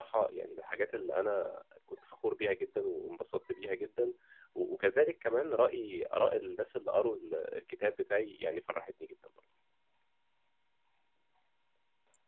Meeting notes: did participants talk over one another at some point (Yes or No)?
No